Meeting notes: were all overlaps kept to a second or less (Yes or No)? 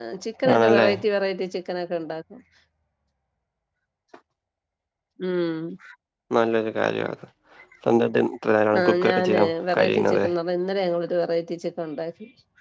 No